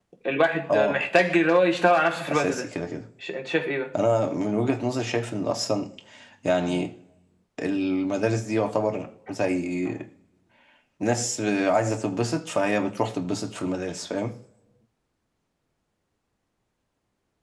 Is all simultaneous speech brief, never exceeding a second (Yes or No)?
Yes